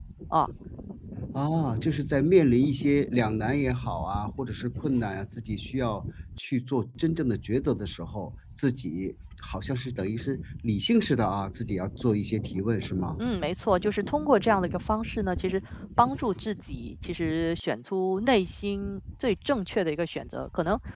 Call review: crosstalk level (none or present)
none